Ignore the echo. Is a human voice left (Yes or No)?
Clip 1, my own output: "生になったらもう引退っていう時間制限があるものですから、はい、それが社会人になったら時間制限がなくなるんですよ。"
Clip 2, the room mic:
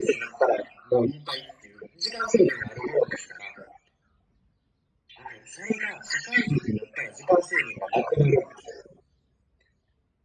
No